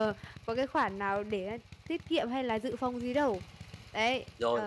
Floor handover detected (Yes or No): Yes